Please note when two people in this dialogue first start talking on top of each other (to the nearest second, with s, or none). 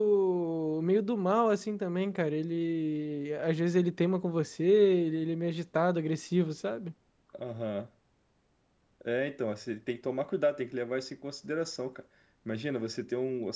none